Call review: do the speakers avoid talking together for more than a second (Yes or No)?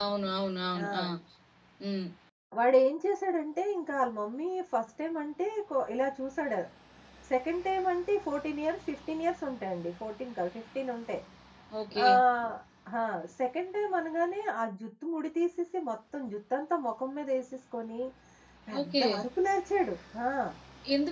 Yes